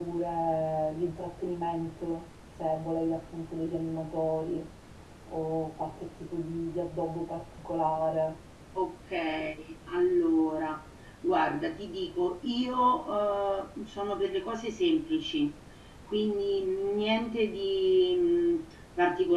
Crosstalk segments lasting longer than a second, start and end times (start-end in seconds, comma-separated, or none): none